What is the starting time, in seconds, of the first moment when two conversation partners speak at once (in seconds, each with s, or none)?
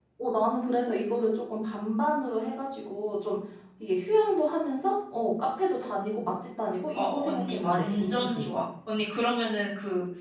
6.9 s